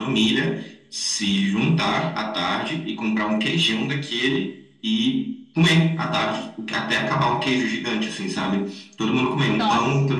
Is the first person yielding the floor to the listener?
No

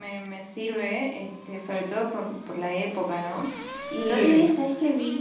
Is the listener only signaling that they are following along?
Yes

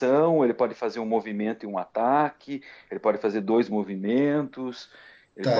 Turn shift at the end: Yes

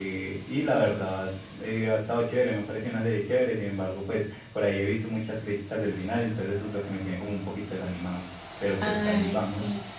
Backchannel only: No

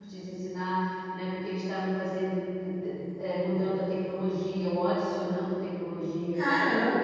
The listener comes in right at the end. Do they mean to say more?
No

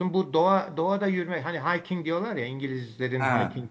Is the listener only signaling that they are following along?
Yes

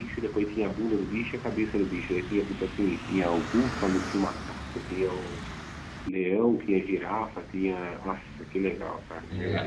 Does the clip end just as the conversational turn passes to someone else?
Yes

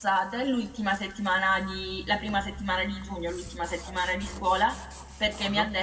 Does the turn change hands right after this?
No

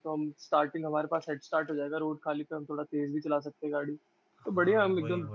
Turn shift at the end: Yes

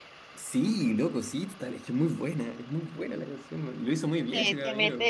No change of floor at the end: No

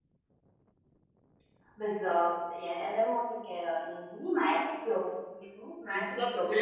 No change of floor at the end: No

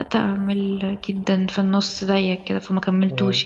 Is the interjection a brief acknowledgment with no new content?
No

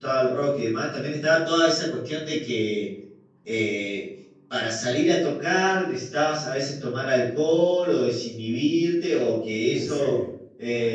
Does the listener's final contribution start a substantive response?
No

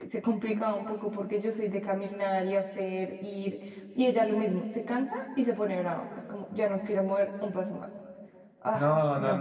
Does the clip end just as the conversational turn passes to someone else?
Yes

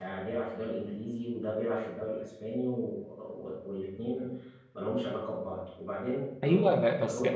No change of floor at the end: No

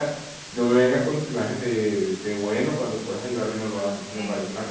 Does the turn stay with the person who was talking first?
No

